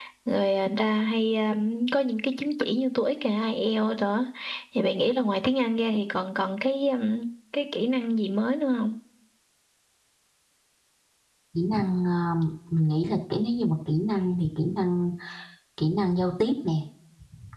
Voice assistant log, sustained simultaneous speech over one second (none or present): none